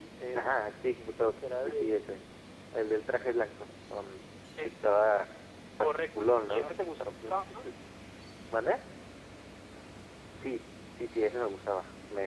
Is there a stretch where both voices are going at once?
Yes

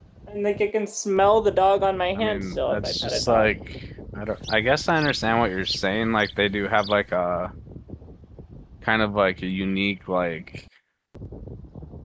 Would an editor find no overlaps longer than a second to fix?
No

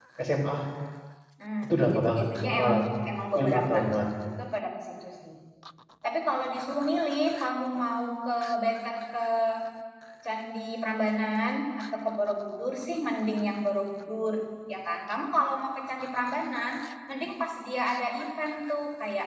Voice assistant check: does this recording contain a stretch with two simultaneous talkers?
Yes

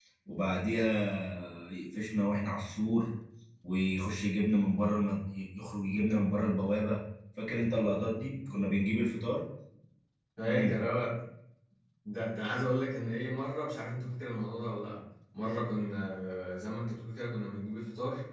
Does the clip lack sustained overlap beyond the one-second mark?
Yes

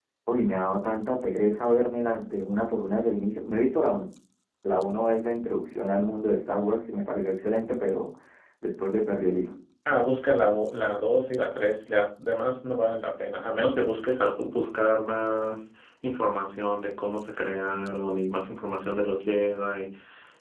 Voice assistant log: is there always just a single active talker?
Yes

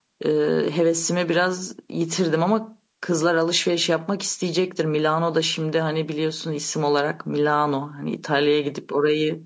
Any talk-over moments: No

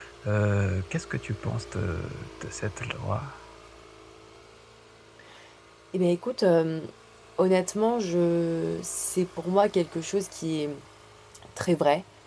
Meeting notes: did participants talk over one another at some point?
No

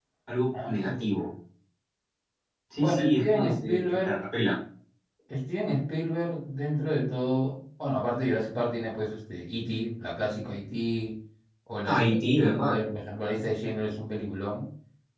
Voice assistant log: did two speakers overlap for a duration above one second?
Yes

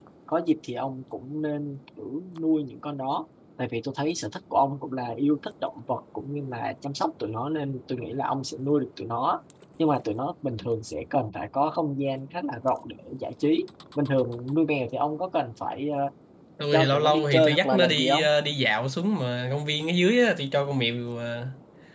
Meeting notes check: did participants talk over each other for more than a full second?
Yes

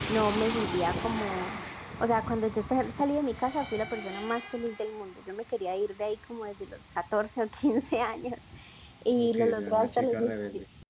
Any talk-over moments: Yes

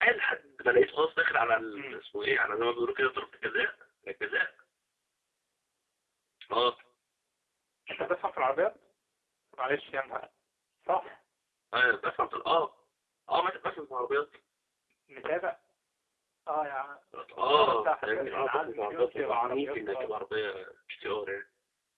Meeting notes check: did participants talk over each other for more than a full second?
Yes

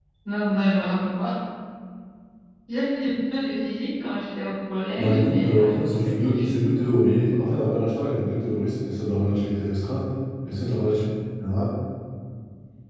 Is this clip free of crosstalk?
No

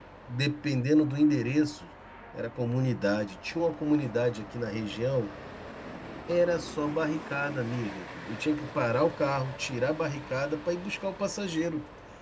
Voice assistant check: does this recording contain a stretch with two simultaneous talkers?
No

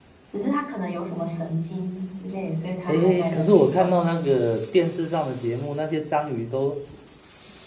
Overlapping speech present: Yes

